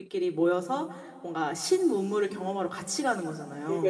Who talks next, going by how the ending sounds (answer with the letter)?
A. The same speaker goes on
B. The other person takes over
B